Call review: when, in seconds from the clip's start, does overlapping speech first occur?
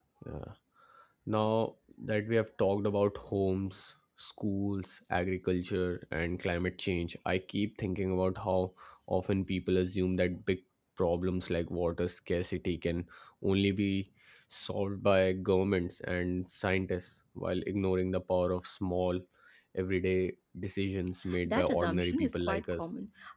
21.4 s

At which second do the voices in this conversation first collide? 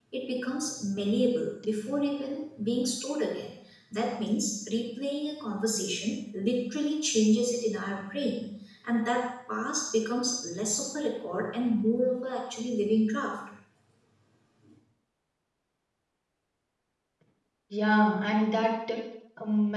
none

